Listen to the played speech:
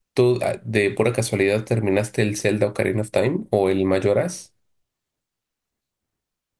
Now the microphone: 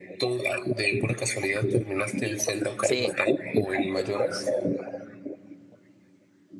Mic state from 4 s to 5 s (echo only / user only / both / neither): echo only